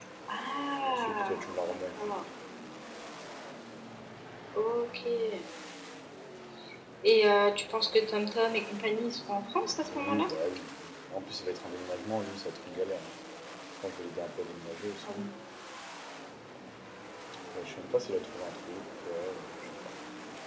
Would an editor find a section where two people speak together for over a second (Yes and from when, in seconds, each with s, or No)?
Yes, from 0.8 s